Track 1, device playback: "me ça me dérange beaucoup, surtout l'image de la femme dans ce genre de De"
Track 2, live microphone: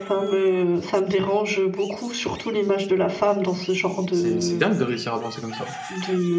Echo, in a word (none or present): present